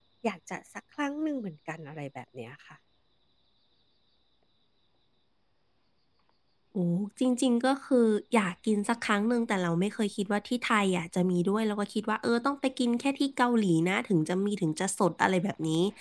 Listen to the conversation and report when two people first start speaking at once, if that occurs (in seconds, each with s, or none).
none